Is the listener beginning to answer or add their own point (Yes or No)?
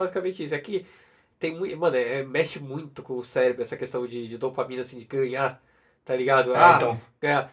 No